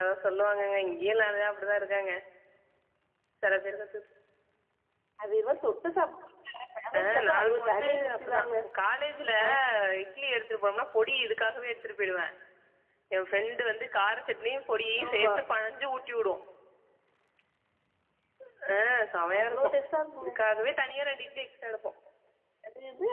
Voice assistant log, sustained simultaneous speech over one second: present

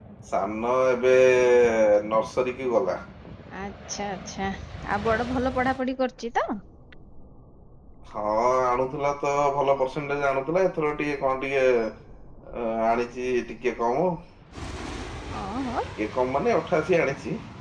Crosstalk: none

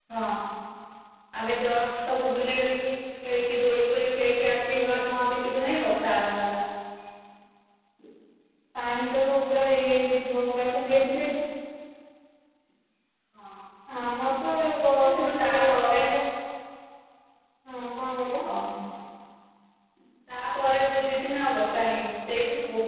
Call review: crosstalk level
present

